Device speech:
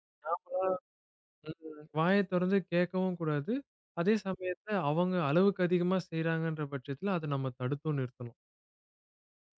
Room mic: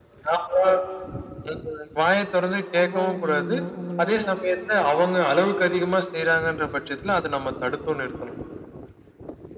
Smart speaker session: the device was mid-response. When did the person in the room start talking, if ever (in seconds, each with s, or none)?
2.7 s